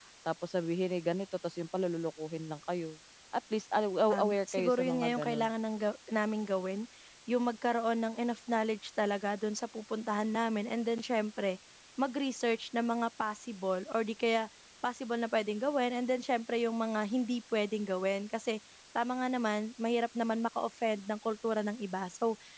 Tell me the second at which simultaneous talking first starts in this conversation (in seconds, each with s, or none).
4.1 s